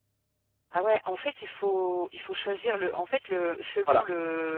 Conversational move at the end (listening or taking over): listening